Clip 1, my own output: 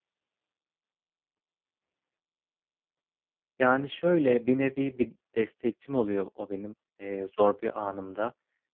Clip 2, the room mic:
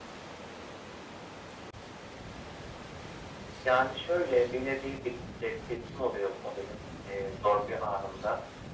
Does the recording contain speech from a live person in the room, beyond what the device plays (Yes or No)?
No